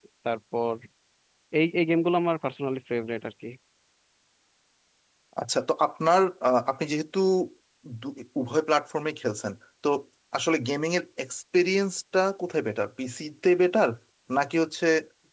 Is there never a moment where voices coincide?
Yes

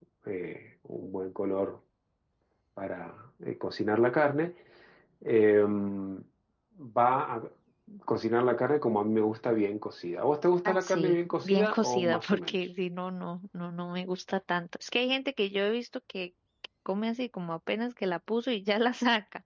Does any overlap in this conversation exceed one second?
Yes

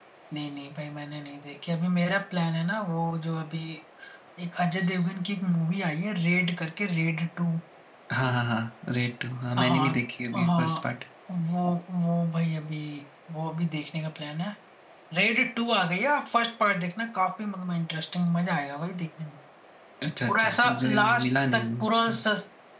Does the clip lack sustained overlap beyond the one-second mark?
No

